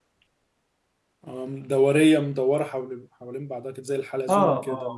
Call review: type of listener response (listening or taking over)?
taking over